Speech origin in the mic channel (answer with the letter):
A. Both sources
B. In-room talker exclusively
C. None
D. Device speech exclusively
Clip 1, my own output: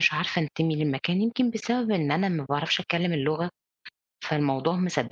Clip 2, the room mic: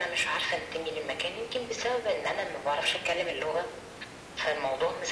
D